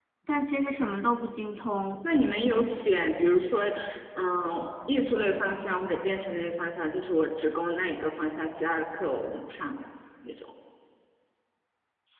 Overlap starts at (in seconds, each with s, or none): none